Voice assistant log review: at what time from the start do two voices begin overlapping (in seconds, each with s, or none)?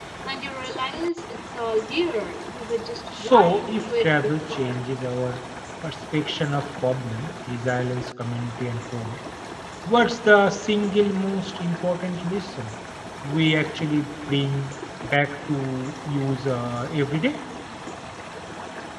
3.1 s